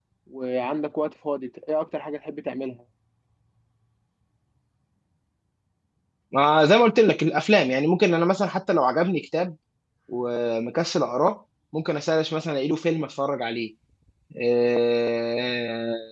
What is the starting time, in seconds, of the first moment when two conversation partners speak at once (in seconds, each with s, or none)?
none